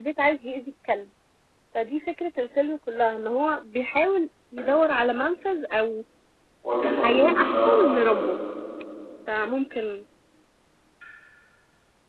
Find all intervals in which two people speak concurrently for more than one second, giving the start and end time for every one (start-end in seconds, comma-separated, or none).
7.0-8.2